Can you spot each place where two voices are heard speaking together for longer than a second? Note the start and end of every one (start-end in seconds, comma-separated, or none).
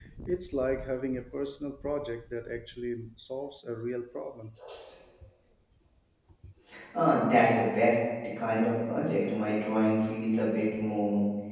none